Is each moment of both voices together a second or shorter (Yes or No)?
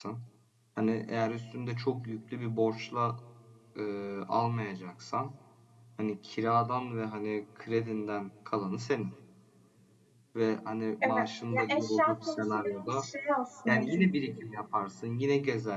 No